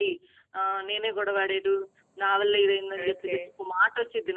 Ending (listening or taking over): listening